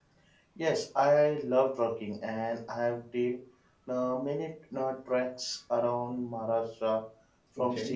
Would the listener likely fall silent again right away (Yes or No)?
Yes